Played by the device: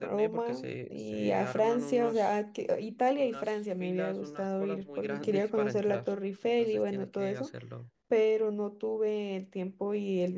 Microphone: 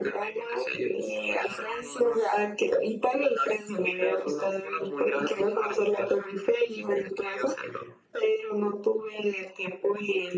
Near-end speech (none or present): none